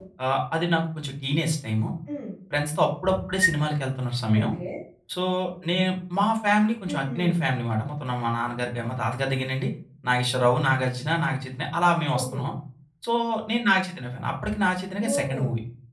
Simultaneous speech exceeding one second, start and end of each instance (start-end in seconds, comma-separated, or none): none